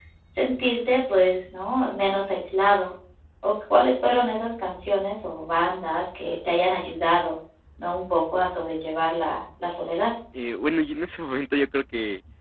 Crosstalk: none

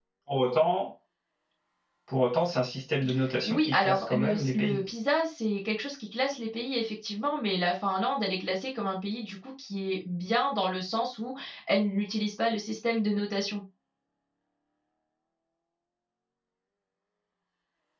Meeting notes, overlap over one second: present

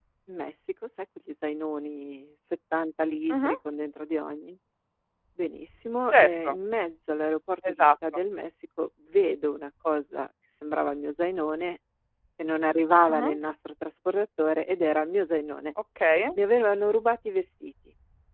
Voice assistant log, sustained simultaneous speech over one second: none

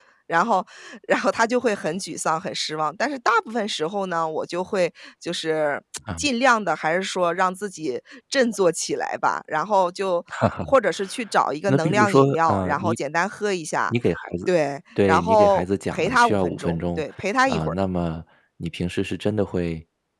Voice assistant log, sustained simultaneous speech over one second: present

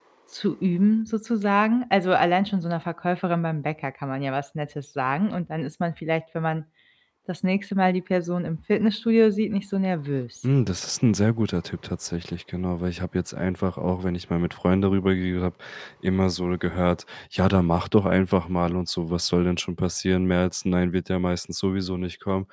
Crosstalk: none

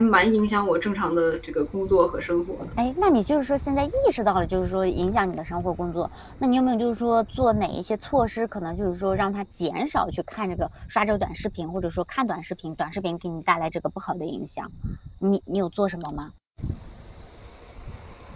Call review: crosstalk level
none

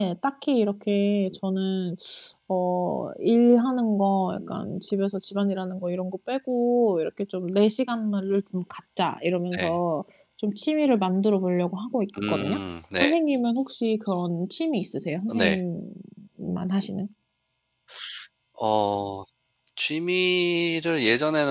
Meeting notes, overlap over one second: none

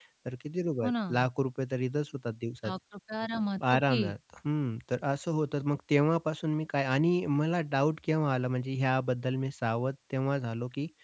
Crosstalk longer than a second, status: none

